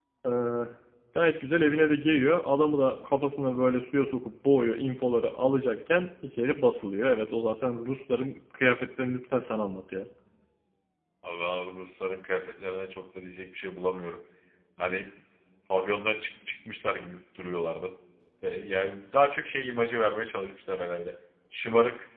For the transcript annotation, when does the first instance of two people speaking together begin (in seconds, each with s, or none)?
none